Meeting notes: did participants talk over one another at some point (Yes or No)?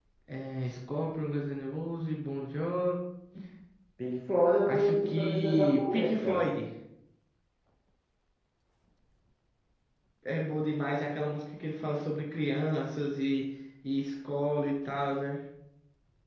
Yes